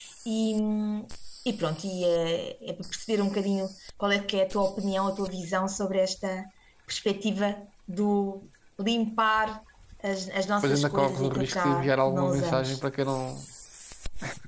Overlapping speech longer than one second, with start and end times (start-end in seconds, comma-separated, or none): 10.6-12.8